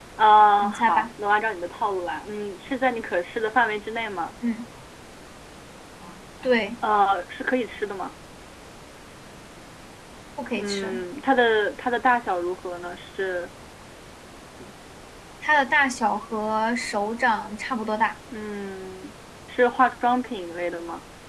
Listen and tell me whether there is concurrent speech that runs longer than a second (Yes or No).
No